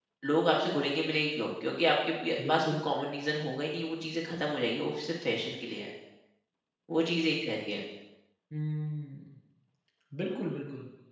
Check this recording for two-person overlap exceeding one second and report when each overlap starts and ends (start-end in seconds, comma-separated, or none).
none